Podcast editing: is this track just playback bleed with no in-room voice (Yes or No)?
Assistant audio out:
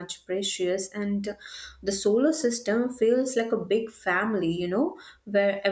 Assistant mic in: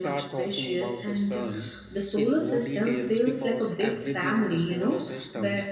No